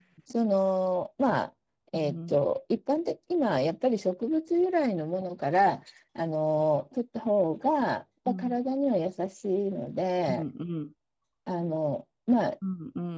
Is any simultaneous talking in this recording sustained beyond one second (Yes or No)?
No